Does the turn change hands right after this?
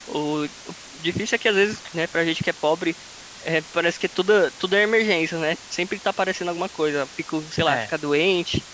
No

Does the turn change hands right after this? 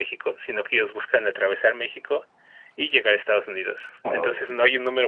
No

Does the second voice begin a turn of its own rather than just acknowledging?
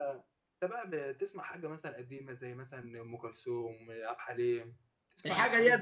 Yes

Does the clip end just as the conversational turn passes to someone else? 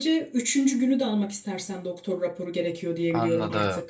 Yes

